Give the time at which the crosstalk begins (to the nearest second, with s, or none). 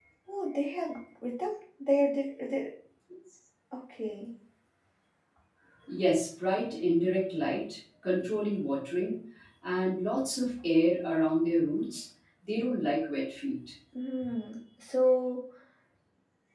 none